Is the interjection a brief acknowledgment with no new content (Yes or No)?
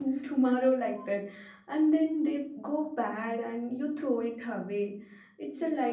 Yes